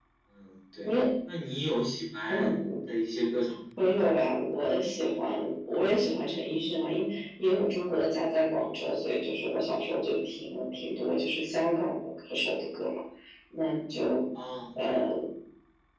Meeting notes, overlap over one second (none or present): none